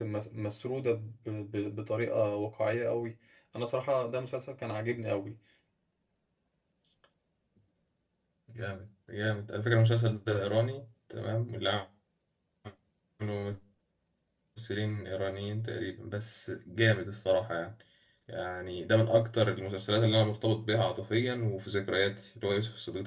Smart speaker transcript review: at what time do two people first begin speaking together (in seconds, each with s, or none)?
none